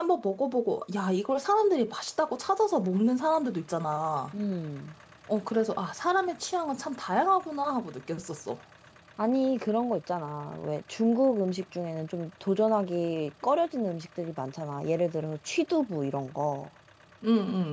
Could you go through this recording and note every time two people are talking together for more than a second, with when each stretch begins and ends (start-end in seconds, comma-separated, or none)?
none